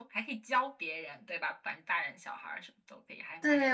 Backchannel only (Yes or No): No